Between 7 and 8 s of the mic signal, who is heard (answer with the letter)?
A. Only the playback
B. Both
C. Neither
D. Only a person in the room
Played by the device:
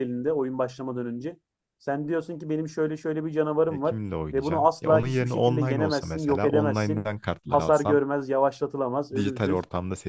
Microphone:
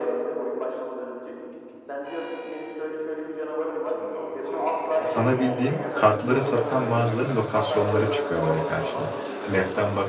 B